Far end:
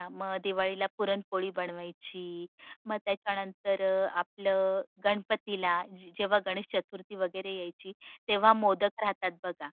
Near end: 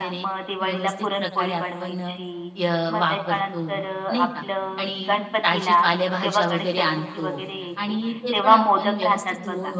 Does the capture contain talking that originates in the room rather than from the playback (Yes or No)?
Yes